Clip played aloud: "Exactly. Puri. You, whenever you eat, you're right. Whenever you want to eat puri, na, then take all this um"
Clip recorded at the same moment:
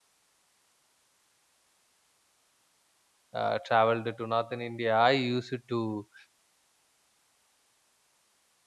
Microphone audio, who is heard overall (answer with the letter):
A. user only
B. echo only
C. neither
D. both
A